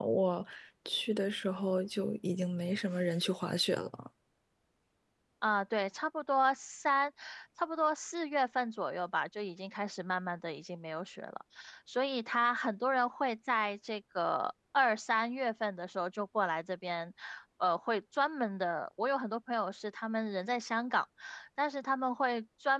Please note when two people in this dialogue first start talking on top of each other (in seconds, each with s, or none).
none